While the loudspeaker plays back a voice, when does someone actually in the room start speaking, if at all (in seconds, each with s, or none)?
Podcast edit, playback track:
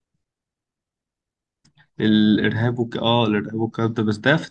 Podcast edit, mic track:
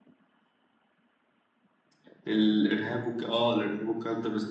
none